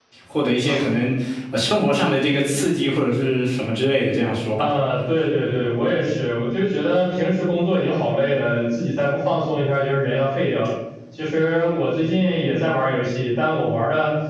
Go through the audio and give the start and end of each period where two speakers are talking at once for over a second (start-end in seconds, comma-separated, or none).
none